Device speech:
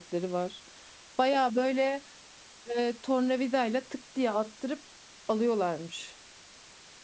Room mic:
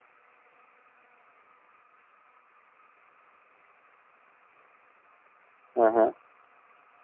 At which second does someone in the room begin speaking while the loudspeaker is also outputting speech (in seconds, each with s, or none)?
5.8 s